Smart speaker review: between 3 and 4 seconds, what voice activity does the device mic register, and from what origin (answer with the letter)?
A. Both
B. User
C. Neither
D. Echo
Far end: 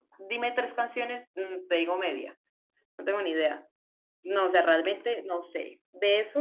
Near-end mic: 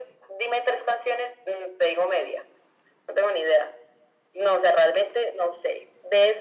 D